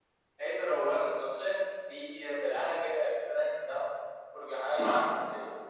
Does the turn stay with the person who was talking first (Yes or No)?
Yes